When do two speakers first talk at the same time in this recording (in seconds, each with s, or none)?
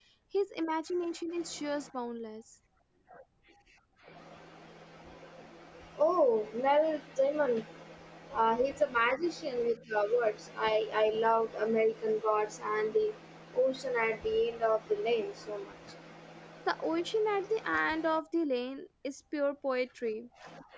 none